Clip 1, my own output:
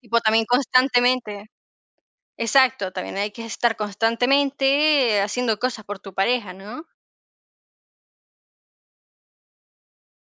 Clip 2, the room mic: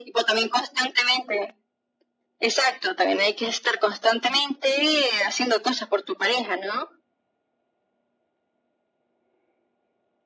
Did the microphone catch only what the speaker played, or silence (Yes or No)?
Yes